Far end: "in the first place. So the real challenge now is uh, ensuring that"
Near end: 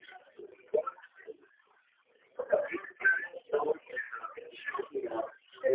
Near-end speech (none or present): none